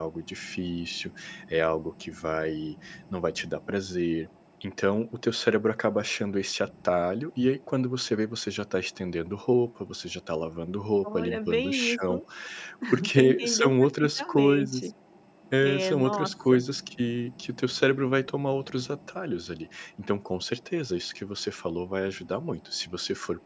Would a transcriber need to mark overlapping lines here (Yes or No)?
Yes